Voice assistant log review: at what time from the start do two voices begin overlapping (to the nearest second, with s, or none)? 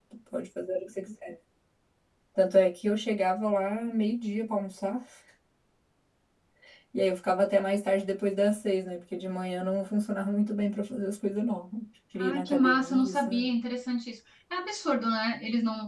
12 s